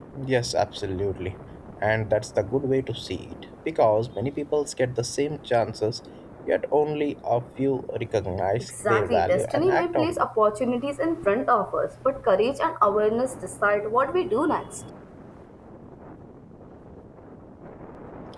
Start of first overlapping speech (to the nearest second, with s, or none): 9 s